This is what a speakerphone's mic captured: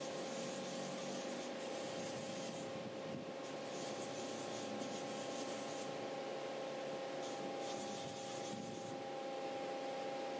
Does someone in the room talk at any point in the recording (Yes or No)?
No